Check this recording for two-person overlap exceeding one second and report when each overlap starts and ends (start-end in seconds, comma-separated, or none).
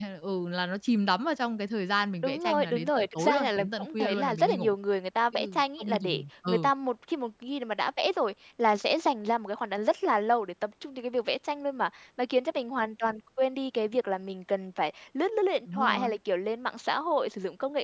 2.2-4.7, 5.3-6.7